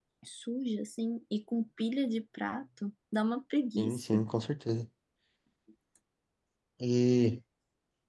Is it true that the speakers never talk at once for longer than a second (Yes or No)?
Yes